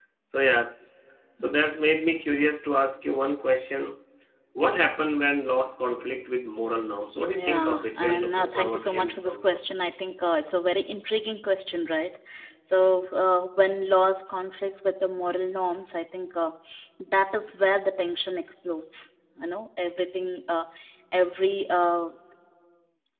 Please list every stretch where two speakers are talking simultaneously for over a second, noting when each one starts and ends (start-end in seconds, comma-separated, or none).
7.3-9.6